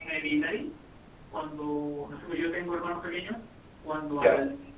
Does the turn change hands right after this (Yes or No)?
No